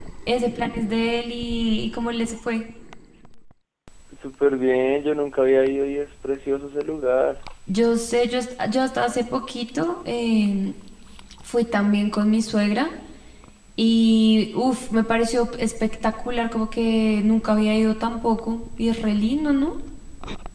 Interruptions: none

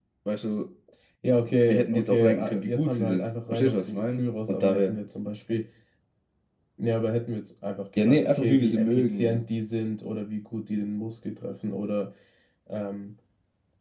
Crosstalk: present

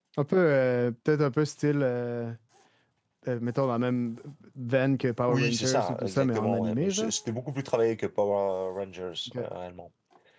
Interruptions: present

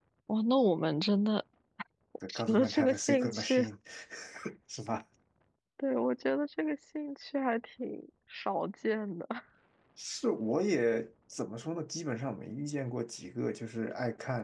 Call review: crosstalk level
present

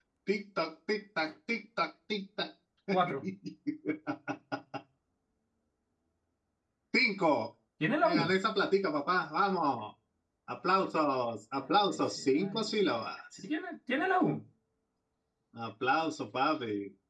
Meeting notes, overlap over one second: present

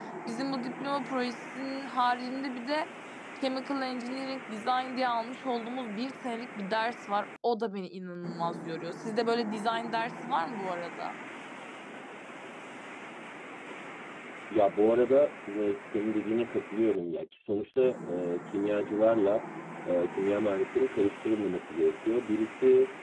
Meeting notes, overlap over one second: none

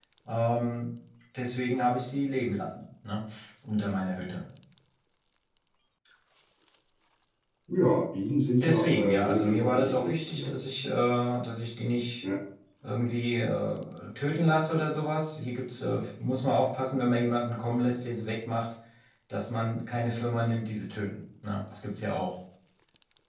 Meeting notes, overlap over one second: present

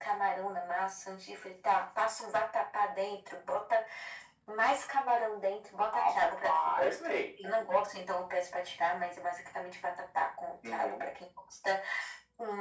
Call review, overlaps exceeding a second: present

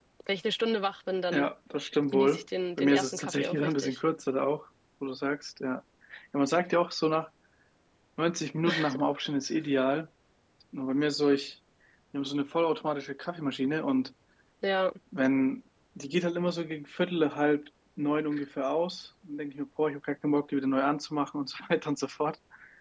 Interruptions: present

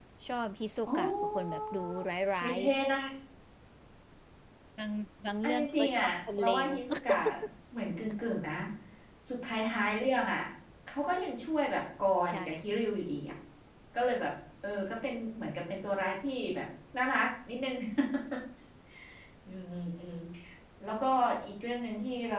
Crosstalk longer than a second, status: present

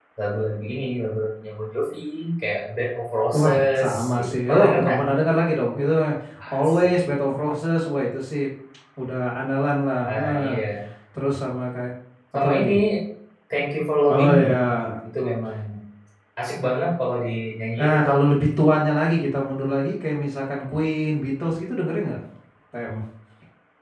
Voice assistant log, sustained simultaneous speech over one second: present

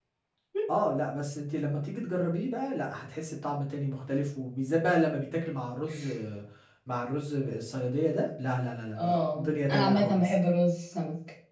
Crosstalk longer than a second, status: present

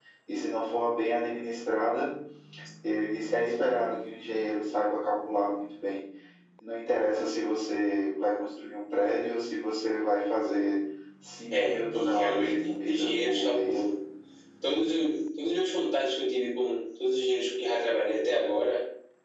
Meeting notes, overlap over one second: present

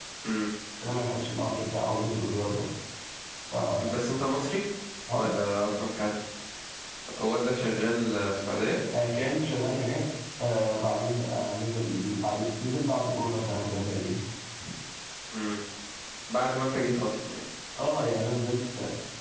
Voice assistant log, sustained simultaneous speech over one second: none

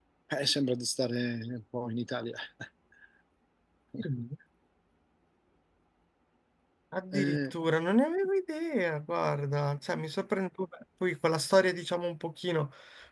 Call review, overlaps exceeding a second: none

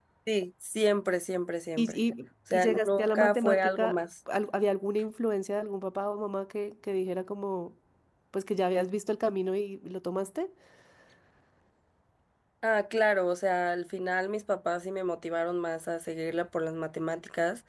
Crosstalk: present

